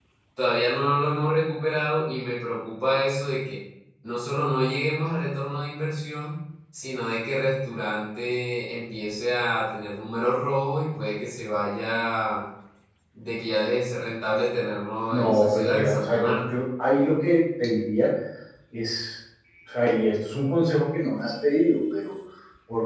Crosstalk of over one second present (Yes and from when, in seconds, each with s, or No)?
Yes, from 15.1 s